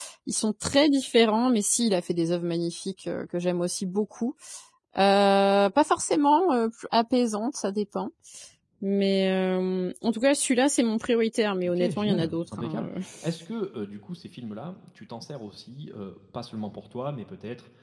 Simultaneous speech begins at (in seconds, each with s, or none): 11.6 s